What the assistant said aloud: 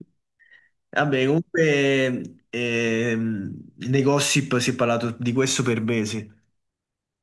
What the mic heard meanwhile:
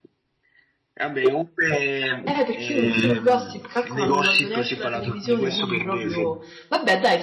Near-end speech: present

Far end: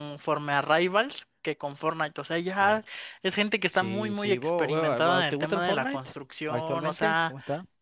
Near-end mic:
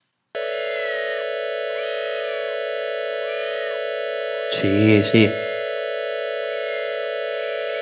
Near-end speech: present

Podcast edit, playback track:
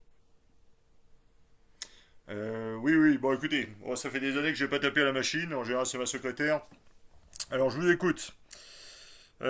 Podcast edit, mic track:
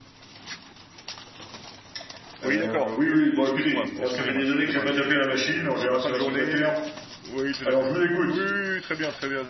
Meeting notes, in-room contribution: present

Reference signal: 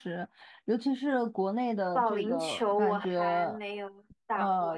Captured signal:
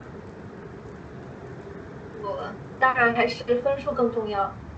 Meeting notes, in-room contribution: present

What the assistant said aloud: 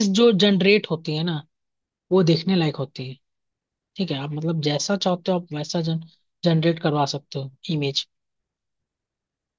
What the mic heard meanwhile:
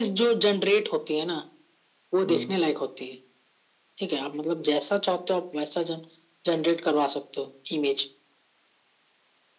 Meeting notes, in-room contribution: present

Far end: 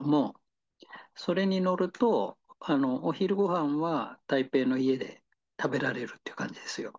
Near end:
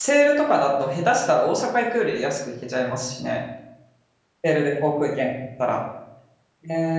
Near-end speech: present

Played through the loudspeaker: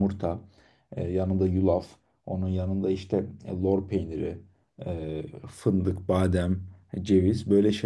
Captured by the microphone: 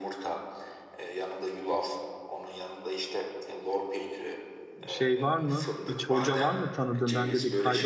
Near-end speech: present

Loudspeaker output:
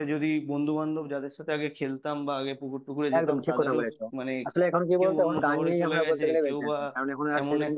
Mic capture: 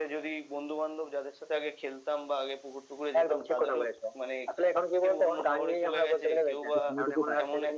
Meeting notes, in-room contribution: present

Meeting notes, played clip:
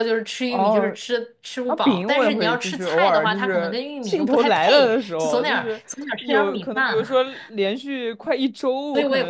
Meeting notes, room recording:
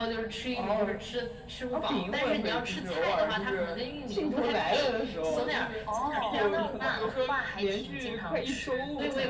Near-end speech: present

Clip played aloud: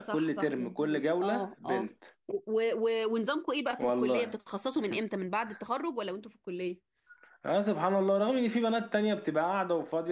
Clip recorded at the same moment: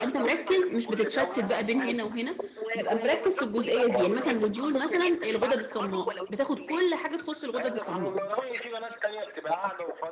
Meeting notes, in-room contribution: present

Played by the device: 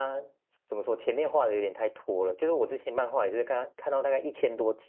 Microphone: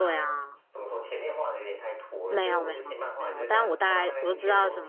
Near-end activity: present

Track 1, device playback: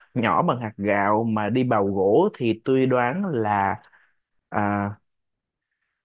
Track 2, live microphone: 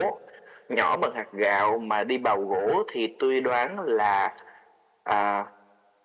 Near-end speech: none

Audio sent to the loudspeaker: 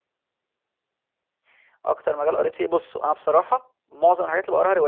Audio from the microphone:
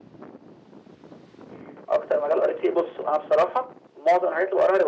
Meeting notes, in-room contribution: none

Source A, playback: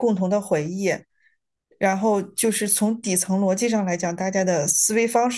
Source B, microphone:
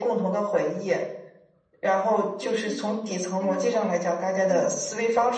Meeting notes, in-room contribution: present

